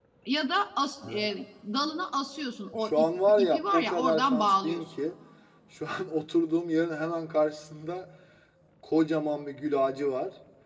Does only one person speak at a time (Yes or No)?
No